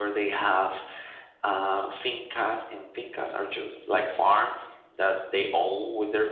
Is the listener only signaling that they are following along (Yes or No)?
Yes